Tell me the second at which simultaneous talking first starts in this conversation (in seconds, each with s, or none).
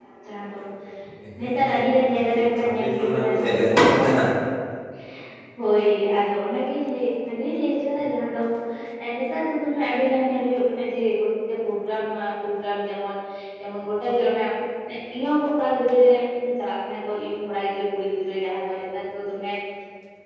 1.4 s